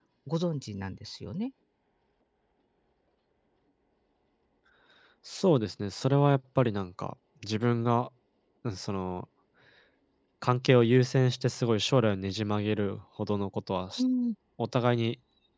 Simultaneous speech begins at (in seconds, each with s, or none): none